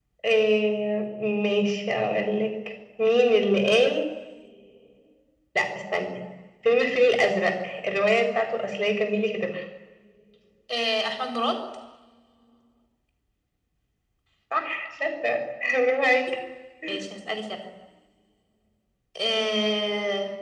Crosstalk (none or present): none